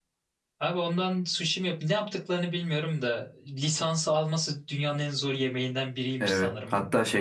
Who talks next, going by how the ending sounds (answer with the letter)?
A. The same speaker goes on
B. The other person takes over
B